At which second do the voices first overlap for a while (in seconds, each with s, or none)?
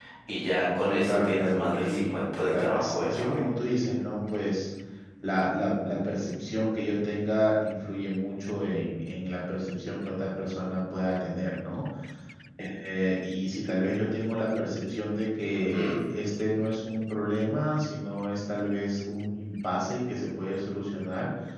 0.8 s